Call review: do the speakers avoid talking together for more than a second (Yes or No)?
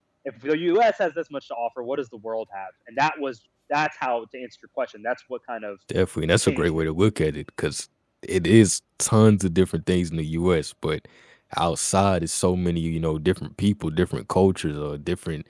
Yes